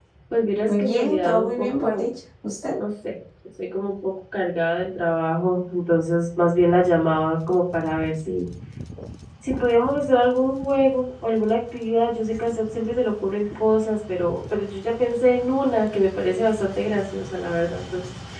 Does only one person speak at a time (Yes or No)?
No